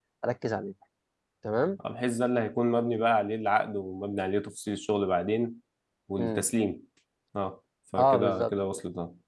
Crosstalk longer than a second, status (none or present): none